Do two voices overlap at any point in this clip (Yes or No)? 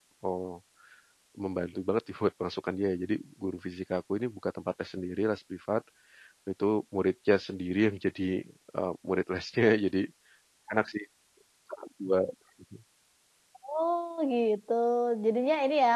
No